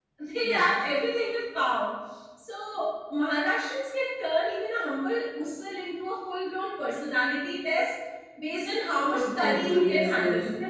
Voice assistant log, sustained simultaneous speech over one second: present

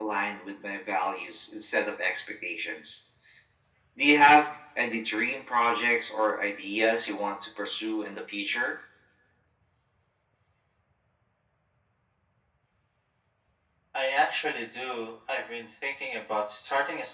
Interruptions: none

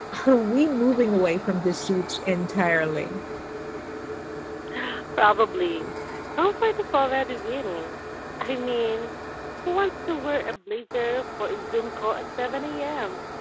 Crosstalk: none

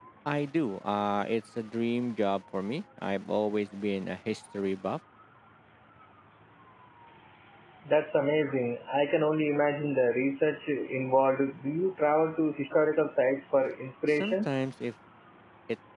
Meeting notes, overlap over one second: none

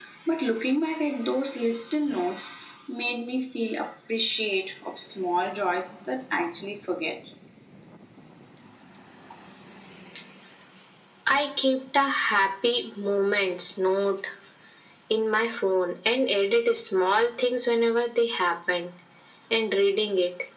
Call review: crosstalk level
none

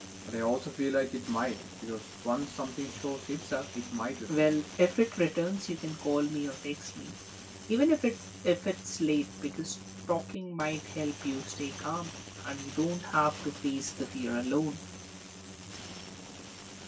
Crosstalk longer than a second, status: none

